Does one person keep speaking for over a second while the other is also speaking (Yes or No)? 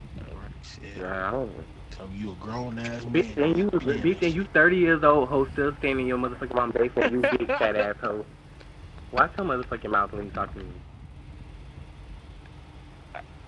Yes